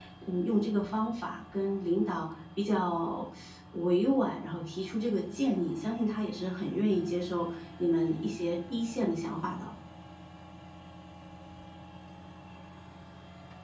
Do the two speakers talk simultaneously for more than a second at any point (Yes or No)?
No